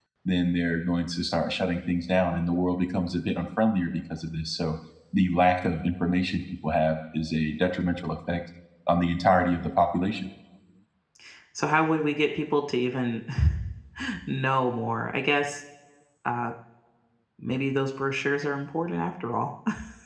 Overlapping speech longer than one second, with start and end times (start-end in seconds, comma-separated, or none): none